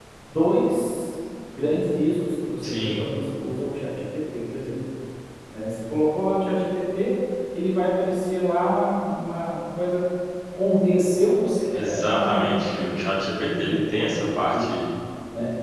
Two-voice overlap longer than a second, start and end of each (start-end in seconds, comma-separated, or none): 11.7-13.0, 13.4-14.7